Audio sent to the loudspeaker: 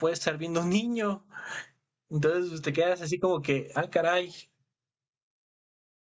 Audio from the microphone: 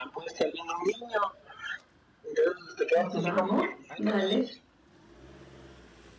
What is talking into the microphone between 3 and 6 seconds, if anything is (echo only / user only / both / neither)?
both